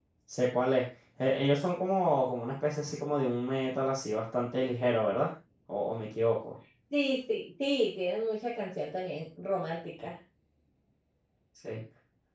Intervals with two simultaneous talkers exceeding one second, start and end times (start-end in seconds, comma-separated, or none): none